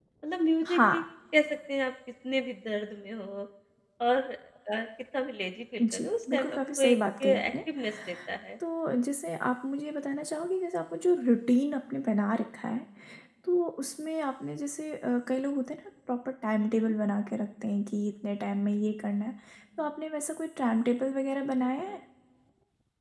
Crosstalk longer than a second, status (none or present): present